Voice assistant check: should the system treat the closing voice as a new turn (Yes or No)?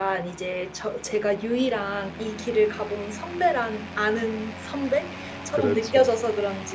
No